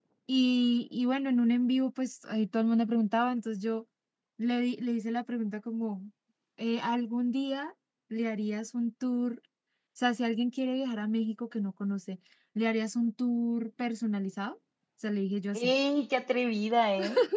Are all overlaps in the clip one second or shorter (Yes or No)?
Yes